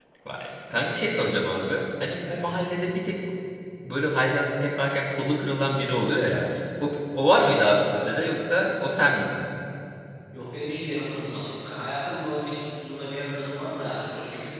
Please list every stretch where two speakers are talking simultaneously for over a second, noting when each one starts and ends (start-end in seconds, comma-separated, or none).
none